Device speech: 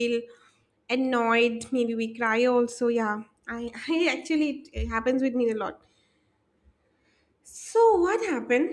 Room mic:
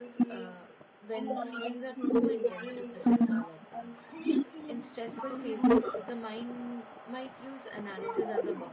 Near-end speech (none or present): present